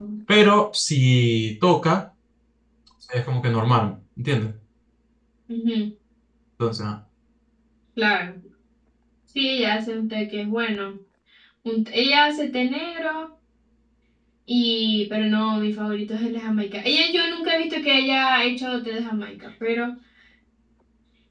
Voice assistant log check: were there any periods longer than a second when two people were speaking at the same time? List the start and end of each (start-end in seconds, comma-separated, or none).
none